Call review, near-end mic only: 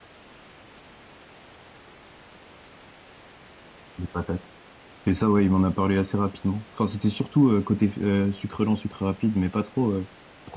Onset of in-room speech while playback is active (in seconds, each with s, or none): 4.0 s